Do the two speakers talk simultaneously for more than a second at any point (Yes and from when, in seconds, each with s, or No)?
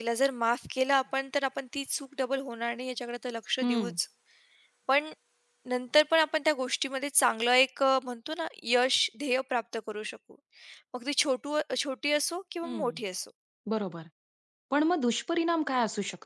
No